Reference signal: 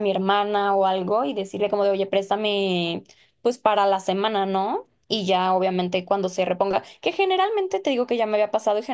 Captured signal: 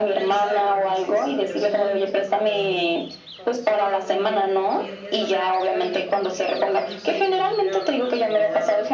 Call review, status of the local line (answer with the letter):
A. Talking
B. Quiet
A